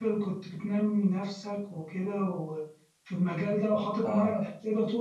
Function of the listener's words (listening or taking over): listening